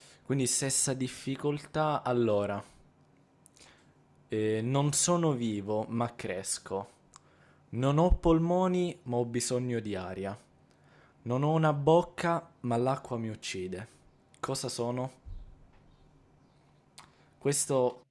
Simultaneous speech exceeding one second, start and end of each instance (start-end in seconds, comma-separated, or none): none